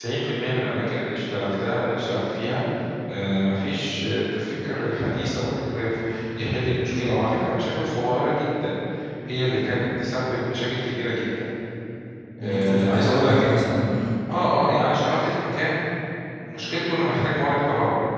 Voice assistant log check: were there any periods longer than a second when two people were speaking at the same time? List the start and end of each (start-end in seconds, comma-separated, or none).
12.4-13.8